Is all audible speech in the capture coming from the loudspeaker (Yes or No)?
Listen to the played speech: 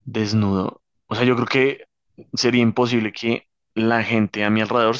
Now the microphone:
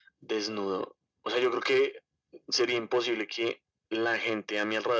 Yes